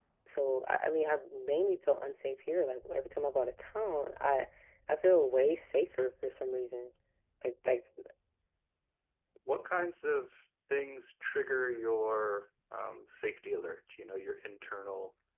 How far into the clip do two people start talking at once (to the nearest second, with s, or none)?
none